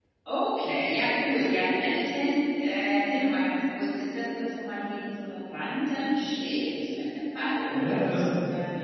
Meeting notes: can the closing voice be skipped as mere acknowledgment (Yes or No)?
No